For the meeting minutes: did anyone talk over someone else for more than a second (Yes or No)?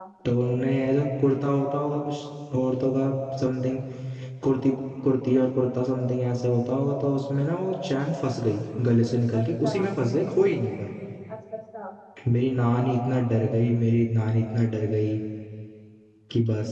No